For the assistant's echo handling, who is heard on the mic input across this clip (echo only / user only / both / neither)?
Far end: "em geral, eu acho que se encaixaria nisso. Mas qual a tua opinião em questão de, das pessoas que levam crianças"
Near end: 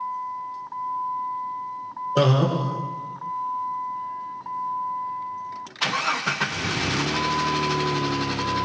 user only